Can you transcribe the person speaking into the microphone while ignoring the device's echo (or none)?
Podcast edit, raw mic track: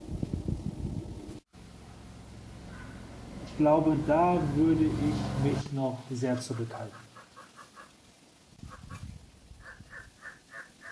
ich glaube, da würde ich mich noch sehr zurückhalten.